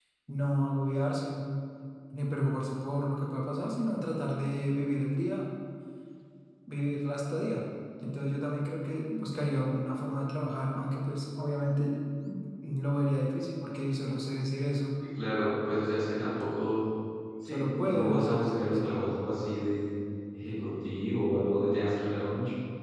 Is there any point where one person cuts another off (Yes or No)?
Yes